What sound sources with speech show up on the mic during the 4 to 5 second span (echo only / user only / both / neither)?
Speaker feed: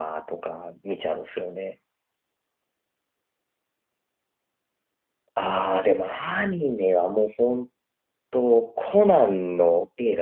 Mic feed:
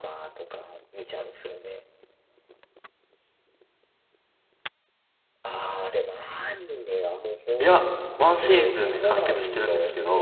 neither